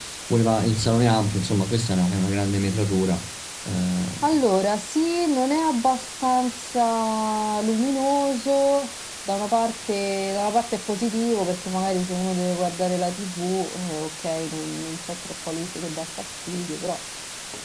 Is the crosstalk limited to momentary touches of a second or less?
Yes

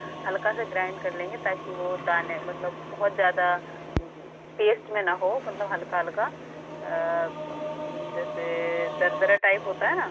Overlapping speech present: No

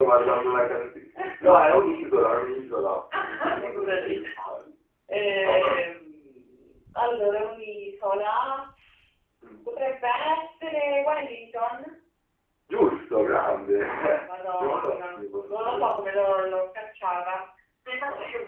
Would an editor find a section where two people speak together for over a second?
Yes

